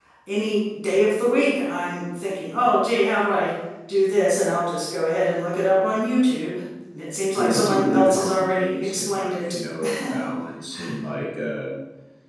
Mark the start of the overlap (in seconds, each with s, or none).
7.4 s